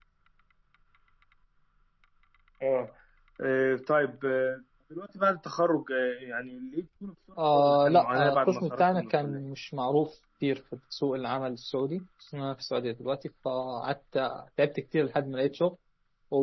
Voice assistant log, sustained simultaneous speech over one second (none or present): present